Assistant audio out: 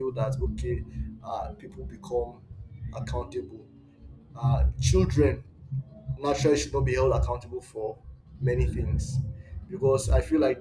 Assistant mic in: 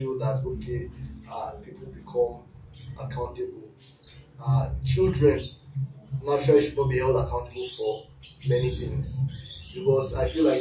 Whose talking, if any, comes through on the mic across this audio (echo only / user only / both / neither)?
echo only